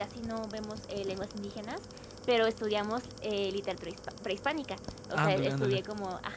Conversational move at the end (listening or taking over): listening